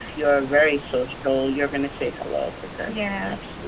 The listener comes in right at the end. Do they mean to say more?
Yes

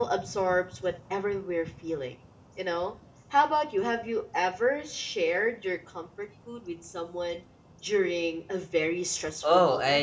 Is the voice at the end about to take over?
Yes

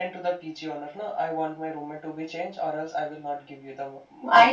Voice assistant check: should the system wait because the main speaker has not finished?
No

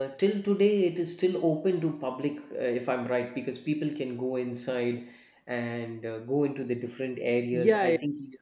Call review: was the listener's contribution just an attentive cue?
No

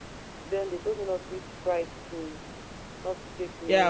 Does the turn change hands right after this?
Yes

